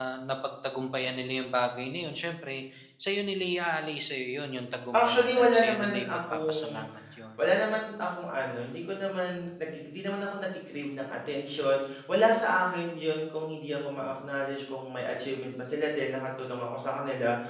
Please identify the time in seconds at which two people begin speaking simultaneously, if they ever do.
4.9 s

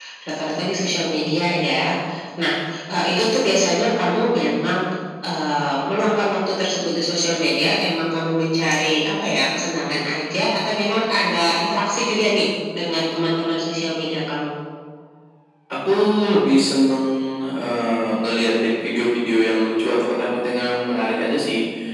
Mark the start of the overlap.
none

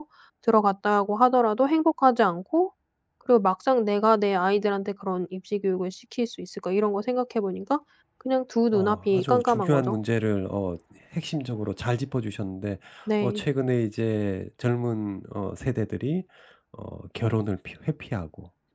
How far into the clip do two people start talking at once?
8.7 s

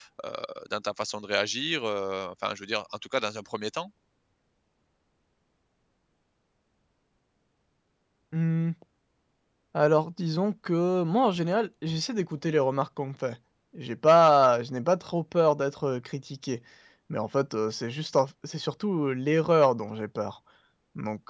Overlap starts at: none

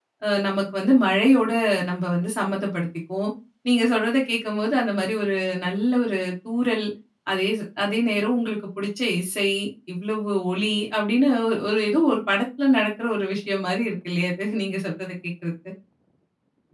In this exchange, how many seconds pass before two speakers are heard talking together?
none

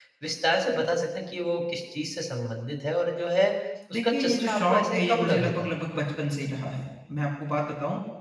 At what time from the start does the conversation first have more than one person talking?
3.9 s

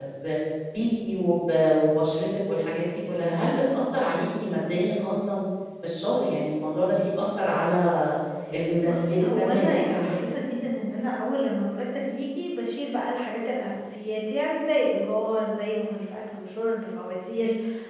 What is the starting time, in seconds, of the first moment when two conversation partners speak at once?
8.8 s

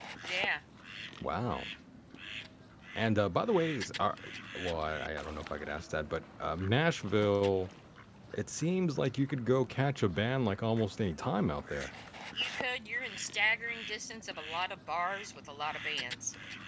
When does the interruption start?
none

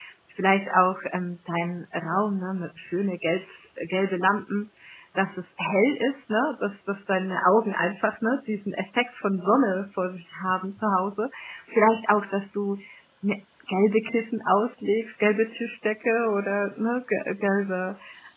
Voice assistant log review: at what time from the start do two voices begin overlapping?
none

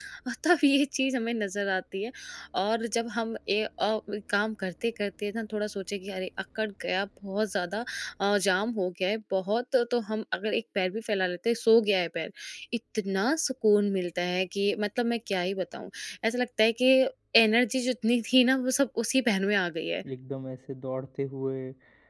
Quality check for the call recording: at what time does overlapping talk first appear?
none

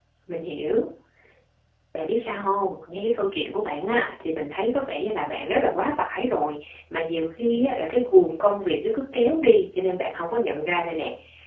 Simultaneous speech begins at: none

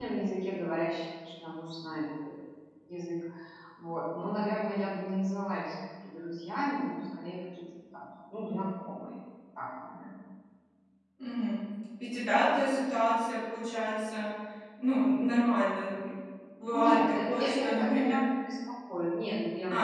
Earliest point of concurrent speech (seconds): 16.7 s

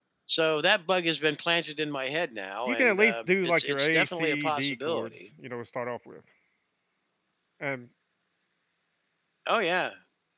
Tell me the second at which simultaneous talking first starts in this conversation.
2.7 s

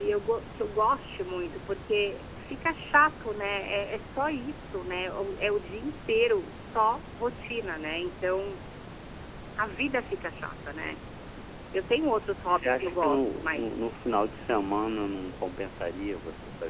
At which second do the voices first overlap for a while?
12.4 s

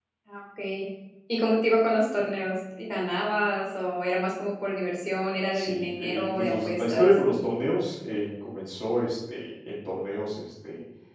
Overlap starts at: 5.5 s

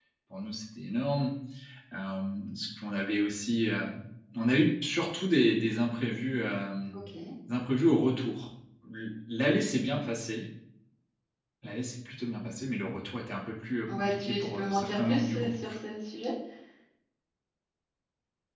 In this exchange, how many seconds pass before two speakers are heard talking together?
13.9 s

